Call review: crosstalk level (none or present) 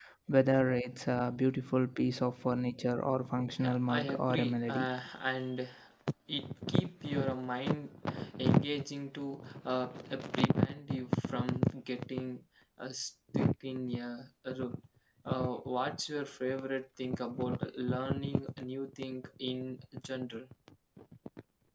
present